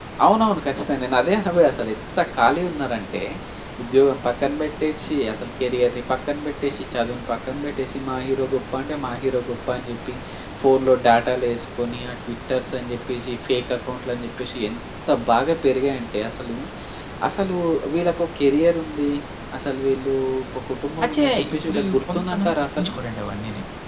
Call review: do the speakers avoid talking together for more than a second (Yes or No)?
No